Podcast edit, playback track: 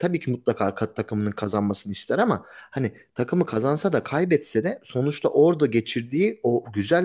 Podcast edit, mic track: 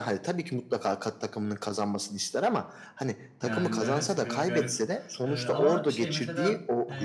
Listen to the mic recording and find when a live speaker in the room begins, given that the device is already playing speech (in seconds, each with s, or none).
3.4 s